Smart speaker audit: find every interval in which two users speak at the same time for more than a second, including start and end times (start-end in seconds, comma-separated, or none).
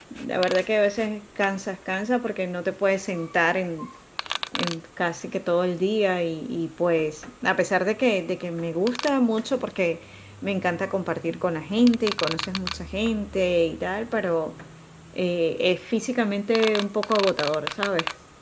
none